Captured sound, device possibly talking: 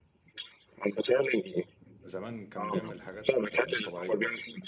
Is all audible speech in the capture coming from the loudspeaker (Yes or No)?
No